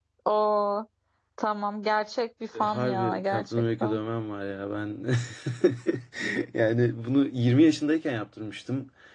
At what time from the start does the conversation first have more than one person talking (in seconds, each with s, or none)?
2.6 s